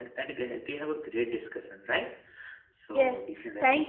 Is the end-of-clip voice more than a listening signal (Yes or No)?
Yes